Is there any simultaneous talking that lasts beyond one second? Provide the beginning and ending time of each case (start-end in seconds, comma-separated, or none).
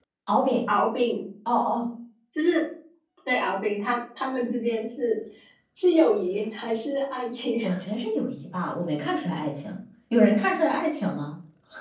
none